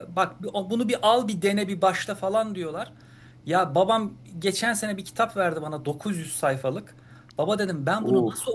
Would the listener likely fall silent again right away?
Yes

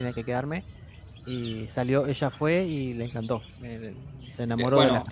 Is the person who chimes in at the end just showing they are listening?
No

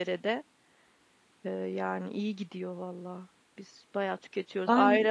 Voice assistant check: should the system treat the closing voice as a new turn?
No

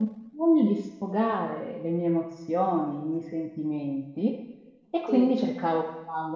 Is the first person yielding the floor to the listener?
No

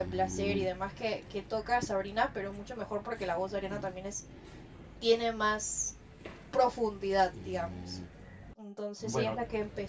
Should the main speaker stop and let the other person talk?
No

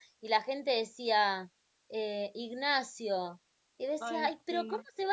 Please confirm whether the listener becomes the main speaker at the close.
No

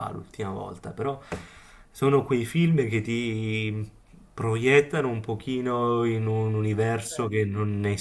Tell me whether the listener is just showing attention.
Yes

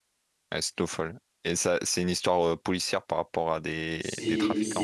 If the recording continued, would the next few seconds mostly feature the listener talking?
Yes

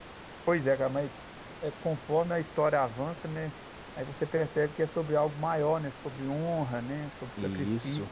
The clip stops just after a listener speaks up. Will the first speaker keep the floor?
Yes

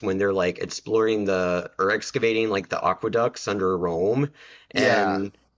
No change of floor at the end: Yes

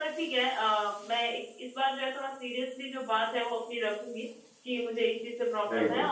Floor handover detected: No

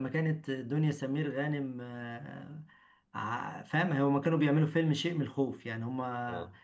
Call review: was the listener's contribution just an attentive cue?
Yes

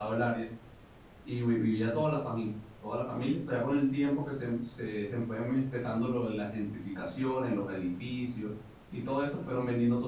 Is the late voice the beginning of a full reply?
No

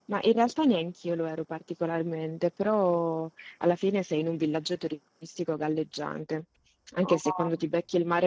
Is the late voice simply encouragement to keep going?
Yes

